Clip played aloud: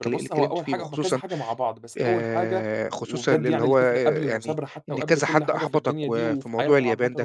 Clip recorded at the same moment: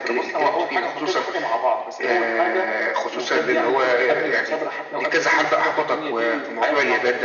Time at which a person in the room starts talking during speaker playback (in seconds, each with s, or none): none